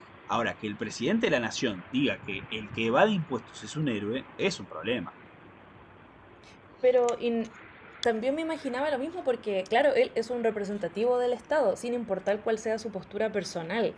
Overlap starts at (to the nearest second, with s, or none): none